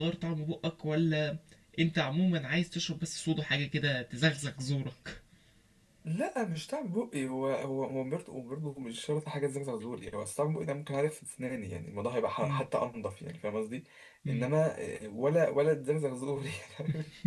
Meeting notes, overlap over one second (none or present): none